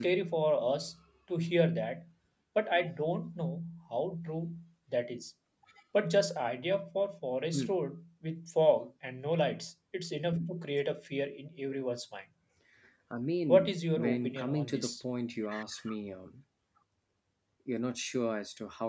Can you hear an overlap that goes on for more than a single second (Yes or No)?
Yes